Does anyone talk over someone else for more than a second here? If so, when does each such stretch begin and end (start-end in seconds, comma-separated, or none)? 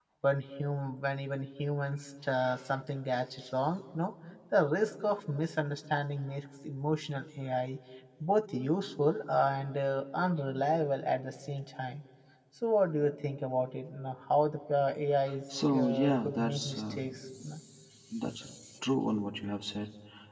15.7-17.0